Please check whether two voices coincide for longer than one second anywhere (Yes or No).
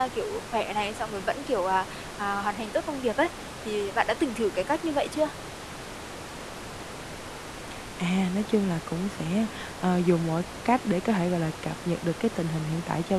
No